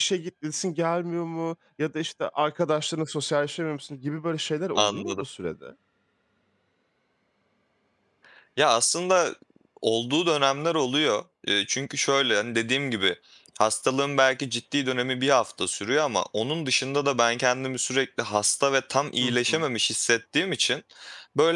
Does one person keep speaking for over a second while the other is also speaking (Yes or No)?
No